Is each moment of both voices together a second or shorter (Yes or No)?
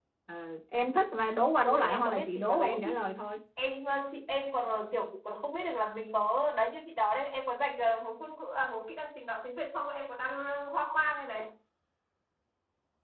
No